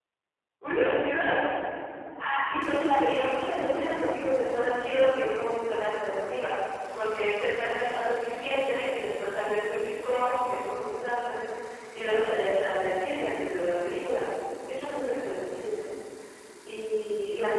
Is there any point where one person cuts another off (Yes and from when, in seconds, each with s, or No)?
No